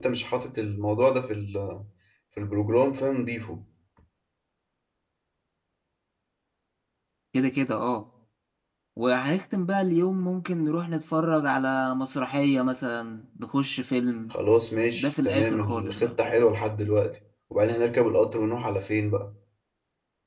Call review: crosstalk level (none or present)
present